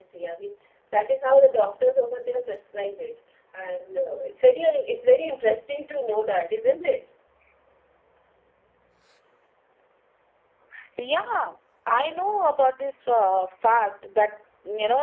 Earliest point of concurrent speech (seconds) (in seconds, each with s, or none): none